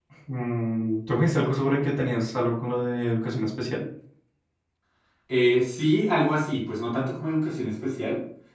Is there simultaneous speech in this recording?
No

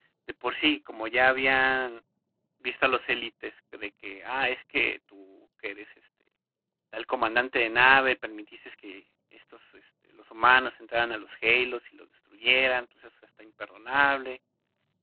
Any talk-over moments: No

